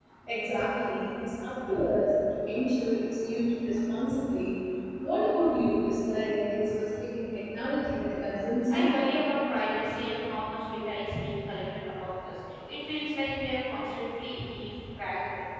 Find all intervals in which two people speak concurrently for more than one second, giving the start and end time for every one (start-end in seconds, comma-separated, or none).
none